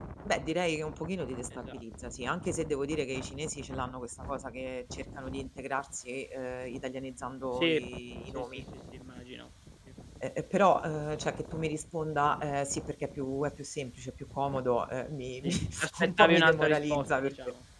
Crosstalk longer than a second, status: present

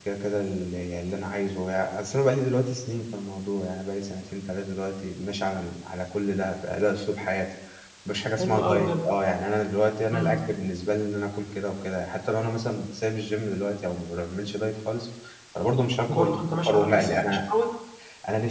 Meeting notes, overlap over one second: present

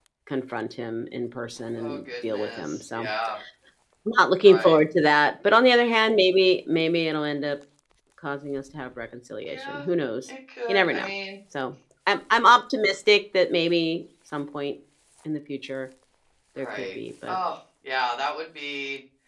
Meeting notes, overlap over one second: present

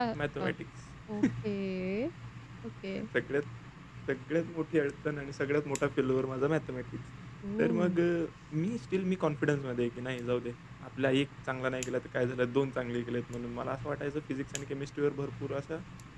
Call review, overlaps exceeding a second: none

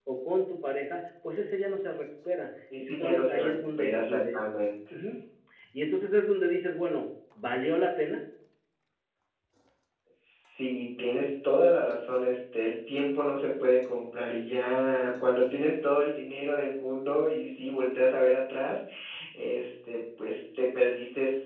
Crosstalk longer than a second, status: present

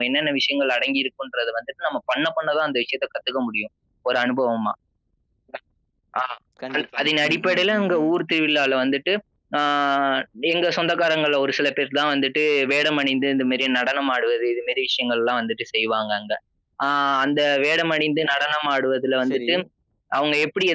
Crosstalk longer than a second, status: present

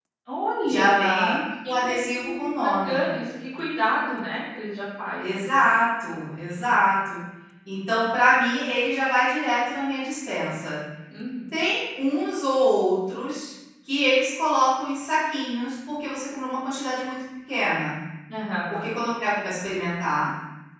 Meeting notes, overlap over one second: present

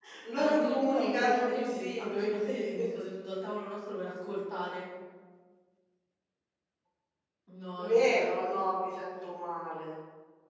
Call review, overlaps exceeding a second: present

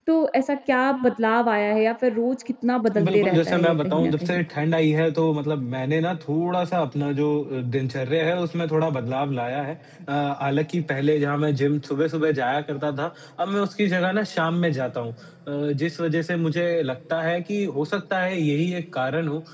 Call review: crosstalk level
present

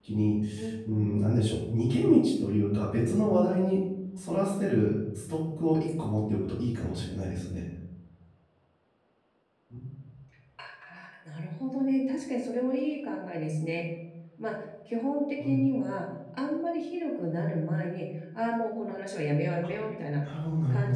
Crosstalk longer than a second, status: none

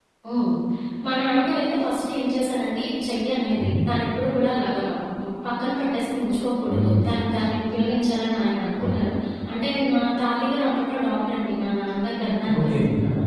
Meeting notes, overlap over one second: none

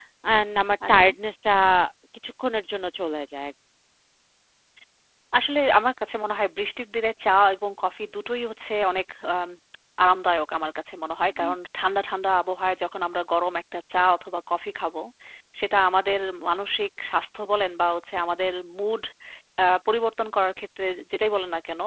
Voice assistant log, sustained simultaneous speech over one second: none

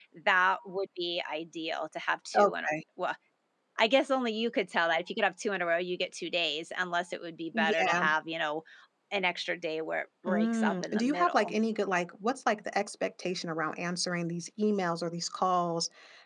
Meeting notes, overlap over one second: present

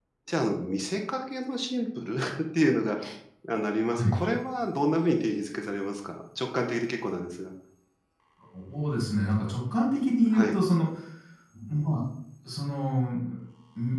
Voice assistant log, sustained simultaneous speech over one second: none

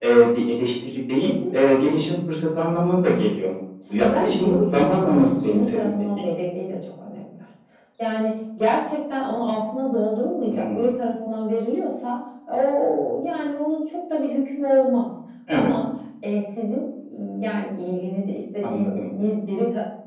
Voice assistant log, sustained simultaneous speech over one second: present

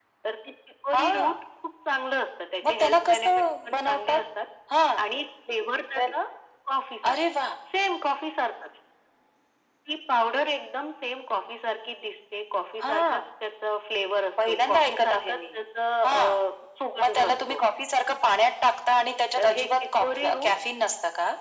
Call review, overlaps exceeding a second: present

